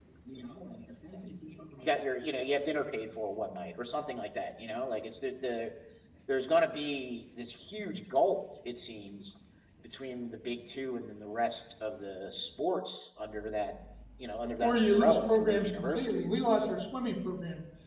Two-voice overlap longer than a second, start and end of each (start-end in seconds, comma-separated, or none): 14.6-16.4